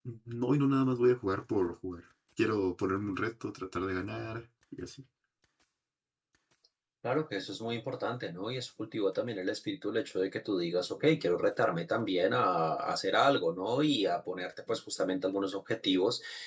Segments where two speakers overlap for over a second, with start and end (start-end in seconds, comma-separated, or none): none